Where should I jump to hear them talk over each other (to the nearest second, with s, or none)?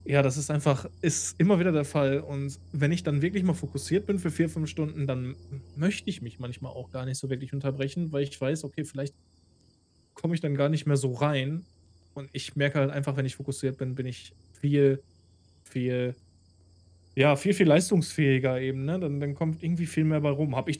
none